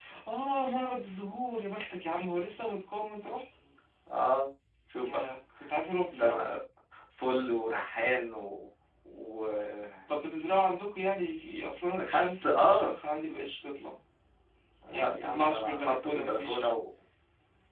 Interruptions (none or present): present